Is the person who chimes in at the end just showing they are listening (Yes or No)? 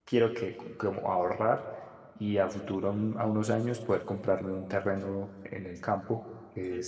Yes